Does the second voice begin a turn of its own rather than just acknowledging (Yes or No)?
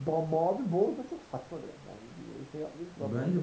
Yes